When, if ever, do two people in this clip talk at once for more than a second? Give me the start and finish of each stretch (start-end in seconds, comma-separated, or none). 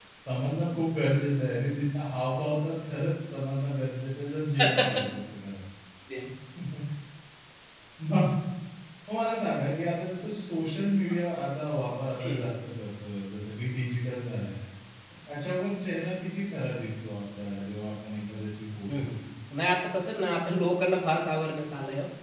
none